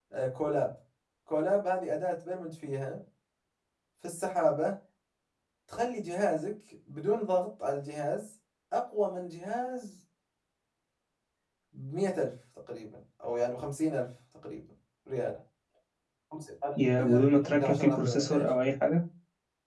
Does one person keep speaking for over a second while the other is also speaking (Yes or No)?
Yes